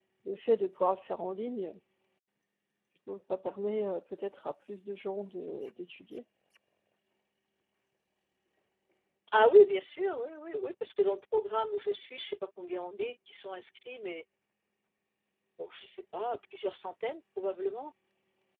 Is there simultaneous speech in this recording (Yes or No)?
No